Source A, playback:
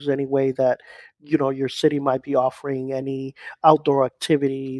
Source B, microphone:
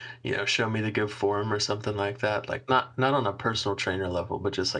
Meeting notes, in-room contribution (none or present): present